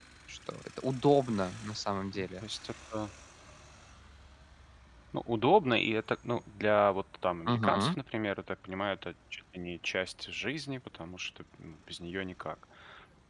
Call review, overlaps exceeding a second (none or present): none